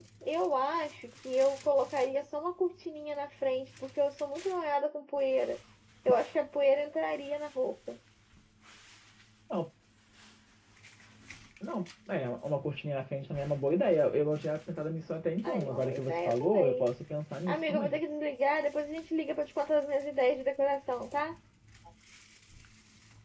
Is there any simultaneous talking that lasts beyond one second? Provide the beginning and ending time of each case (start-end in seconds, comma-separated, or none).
15.4-16.8